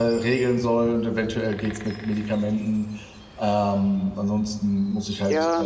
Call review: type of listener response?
taking over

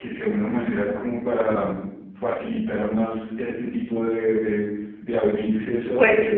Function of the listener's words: listening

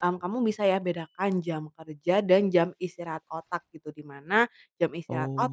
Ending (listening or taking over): listening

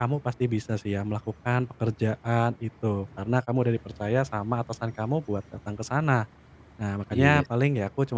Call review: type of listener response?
listening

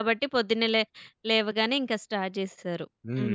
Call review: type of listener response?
taking over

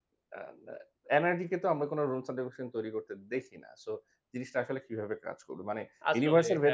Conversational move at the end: listening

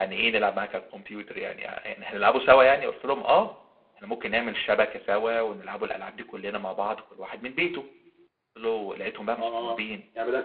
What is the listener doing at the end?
taking over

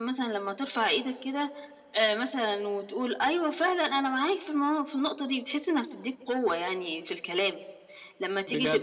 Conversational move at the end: listening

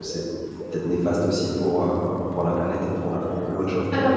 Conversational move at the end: taking over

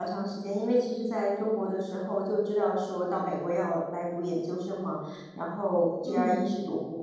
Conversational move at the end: listening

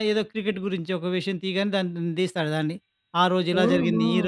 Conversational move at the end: listening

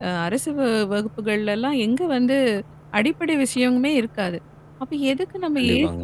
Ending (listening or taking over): listening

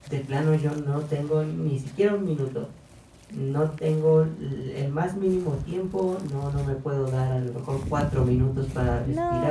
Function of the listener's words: taking over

